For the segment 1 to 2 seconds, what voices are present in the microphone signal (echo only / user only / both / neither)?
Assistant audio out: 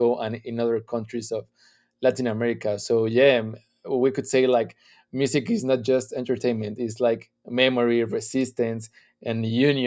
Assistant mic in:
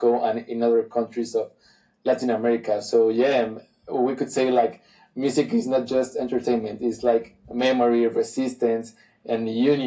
echo only